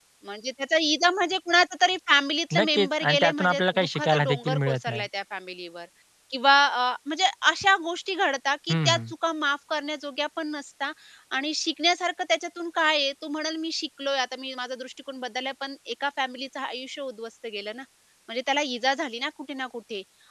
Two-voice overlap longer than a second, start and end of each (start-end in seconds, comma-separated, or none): 2.5-5.1